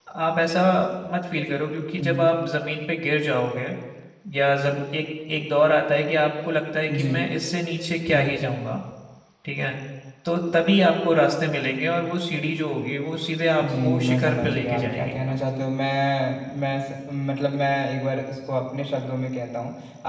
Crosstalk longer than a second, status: present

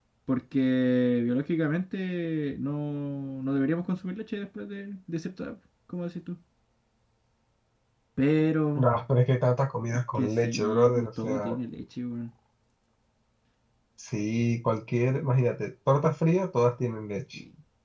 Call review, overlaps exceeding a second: present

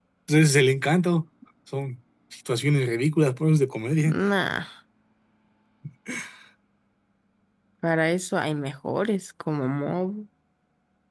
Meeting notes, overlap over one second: none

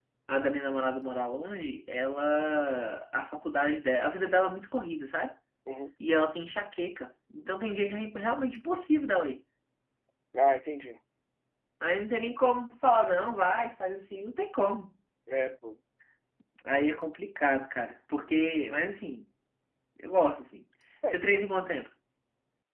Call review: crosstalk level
none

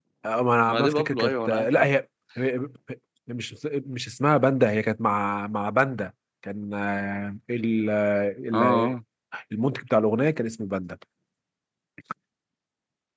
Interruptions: present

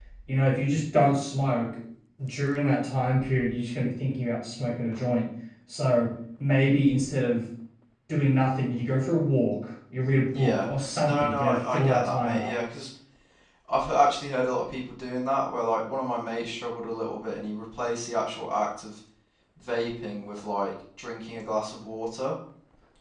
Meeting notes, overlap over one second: present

